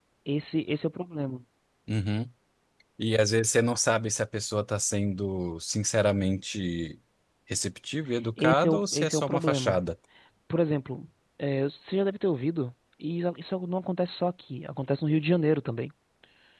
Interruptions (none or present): present